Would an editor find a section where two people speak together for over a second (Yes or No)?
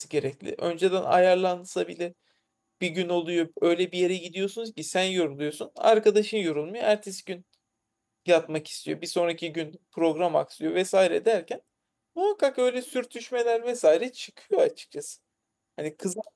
No